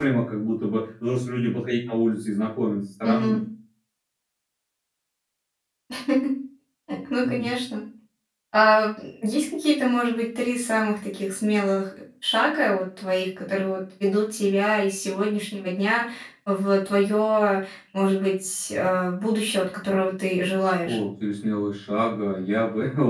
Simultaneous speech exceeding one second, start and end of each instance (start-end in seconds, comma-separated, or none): none